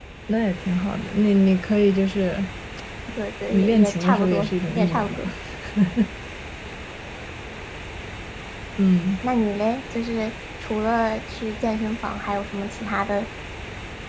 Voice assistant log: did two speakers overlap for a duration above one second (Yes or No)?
Yes